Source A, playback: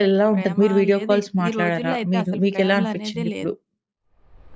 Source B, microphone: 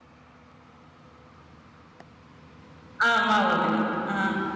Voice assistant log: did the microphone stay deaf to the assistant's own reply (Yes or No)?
Yes